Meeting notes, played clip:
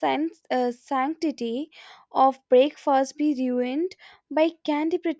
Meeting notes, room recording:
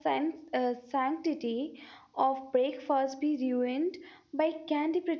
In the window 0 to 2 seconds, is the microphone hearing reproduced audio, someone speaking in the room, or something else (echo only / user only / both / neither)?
echo only